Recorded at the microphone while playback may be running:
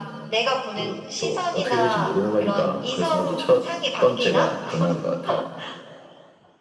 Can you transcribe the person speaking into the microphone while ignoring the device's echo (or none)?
none